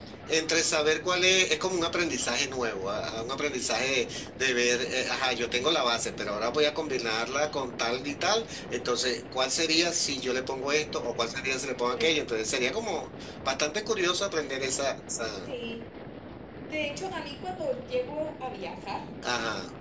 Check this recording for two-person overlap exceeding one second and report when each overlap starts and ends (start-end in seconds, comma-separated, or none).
none